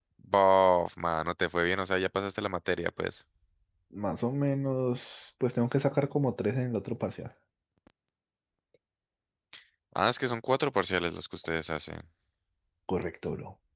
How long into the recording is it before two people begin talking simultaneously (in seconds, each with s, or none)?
none